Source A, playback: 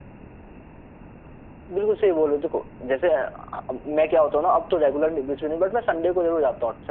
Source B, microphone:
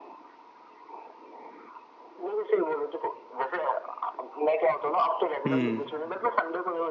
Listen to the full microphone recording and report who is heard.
both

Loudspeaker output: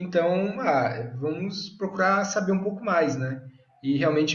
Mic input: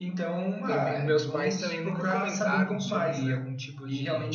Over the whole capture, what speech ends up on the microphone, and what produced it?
both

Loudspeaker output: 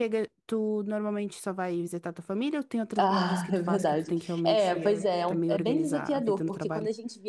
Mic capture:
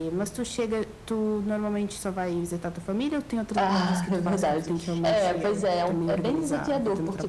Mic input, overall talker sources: echo only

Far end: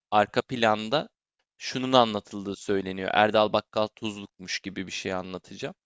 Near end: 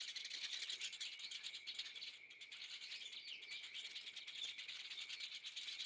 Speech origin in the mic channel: neither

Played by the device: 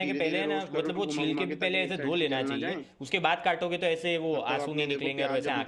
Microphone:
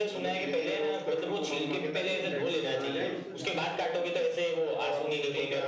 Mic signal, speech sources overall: both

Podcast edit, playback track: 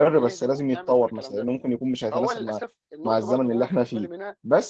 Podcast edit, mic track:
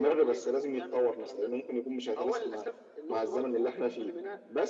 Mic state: echo only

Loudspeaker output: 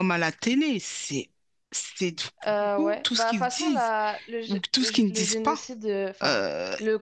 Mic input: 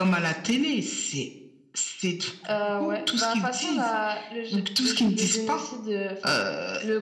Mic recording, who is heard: echo only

